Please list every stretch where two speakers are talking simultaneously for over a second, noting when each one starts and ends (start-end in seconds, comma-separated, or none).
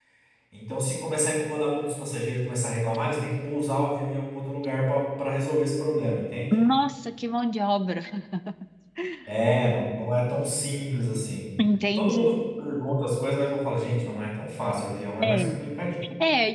none